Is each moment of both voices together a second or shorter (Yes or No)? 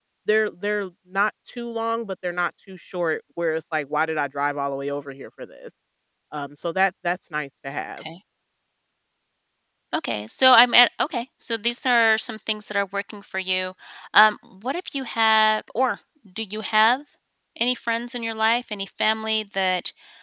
Yes